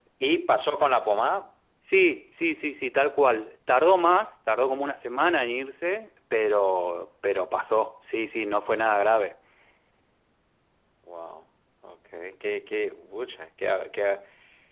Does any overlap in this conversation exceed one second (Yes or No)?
No